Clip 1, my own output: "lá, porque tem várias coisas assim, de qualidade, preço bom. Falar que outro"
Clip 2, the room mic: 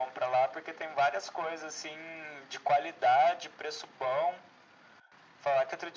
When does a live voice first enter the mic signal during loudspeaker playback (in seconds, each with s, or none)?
none